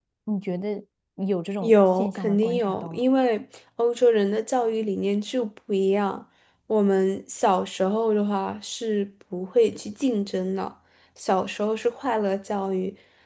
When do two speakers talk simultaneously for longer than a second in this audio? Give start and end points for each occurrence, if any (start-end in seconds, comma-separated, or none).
1.6-3.0